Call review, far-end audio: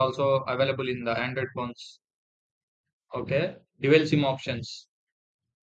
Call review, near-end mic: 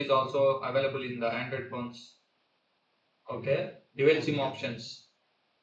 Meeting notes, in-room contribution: present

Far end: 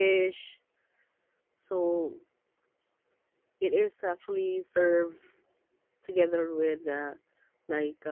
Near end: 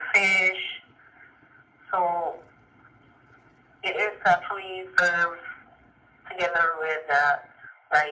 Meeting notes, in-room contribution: none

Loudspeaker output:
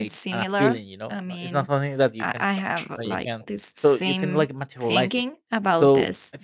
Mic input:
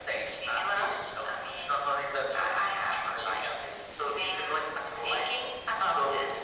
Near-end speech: none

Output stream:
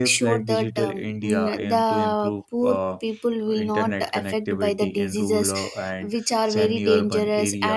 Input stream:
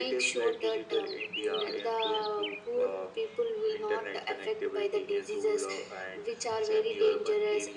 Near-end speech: none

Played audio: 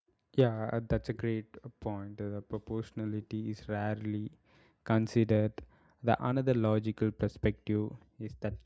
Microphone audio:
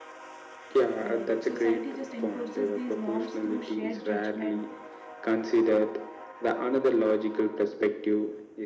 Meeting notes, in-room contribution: present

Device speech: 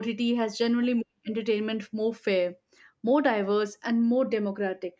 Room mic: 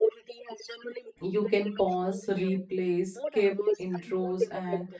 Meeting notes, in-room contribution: present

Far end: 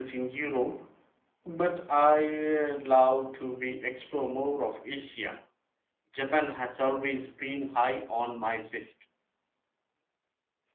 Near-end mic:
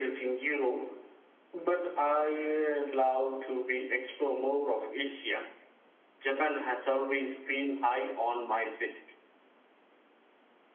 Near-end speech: none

